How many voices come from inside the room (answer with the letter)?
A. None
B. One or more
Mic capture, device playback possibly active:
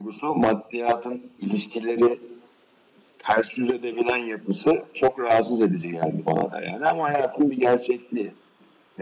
A